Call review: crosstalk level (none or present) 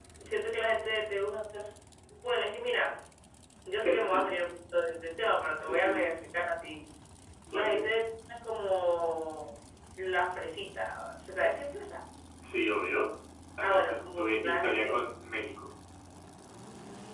present